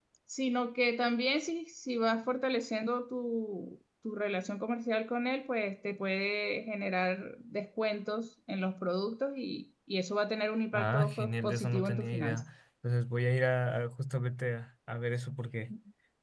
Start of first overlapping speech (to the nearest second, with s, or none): 11 s